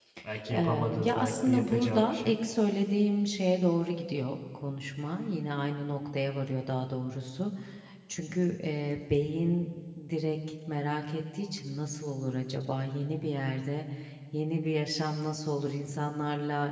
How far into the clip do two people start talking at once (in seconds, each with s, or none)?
0.5 s